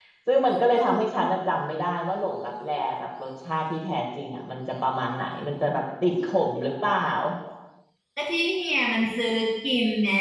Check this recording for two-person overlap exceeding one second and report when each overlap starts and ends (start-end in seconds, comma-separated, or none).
none